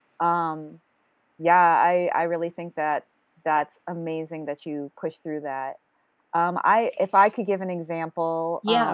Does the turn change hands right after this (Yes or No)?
Yes